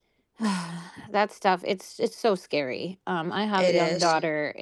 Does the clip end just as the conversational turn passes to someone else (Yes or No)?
No